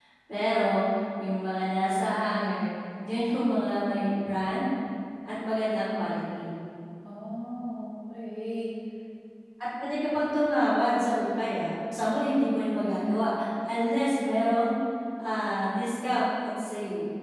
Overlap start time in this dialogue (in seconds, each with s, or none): none